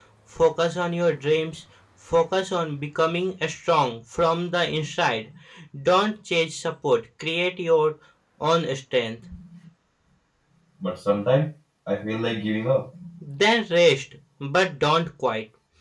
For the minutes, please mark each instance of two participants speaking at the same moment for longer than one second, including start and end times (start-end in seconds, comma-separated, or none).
none